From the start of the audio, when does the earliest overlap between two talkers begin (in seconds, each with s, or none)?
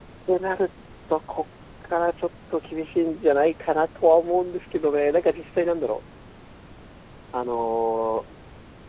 none